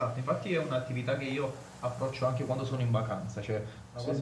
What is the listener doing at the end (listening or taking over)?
listening